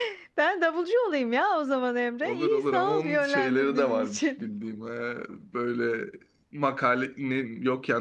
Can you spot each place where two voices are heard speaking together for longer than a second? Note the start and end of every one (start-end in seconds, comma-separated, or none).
2.2-4.3